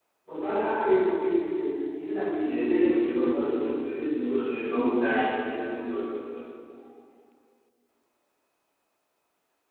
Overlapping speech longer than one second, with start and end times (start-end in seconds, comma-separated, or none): 2.4-3.7